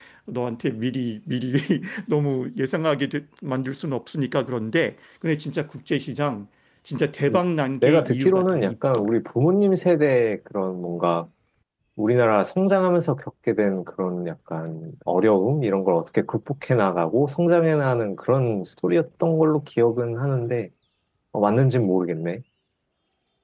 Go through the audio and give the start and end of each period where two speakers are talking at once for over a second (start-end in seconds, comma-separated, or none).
7.8-9.1